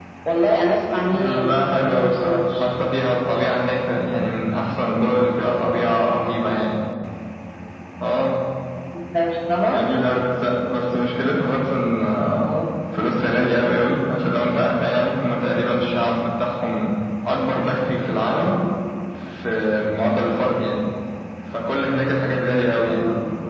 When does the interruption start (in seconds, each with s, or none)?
1.1 s